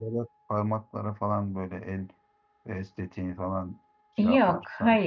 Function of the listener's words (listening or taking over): taking over